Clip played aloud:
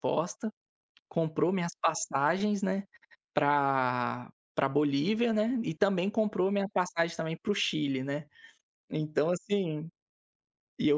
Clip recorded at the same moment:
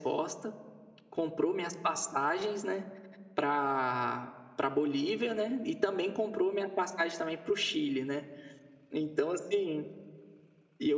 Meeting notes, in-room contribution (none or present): none